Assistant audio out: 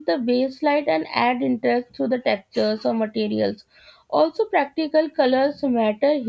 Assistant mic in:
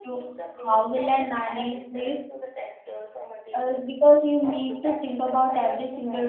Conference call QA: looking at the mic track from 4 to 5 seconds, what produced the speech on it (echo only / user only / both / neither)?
both